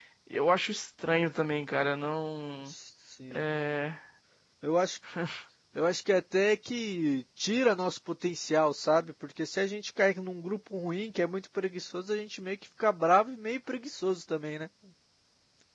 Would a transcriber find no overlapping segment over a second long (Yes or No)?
Yes